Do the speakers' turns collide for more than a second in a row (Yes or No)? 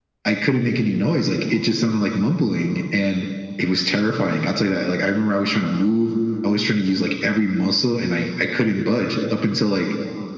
No